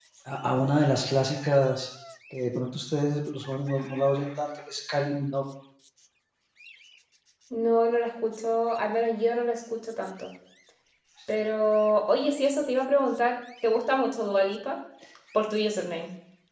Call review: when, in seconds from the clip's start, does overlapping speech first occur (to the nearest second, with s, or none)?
none